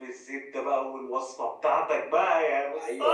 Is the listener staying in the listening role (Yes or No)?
No